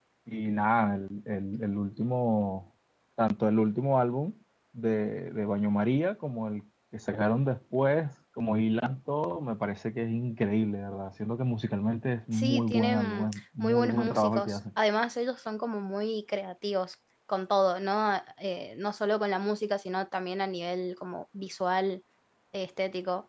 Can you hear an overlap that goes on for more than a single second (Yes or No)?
Yes